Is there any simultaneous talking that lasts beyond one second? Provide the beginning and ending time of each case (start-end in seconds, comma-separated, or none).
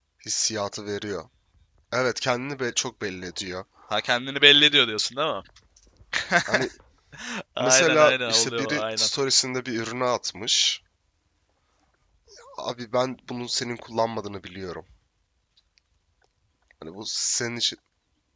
7.6-9.1